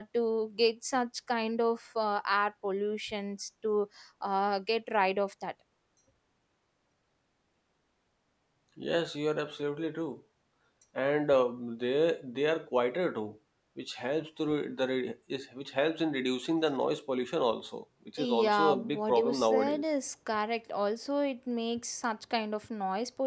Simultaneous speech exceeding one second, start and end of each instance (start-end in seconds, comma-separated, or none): 18.2-19.8